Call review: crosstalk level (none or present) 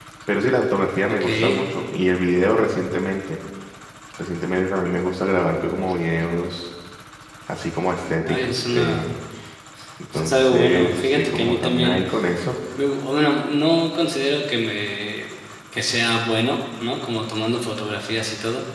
present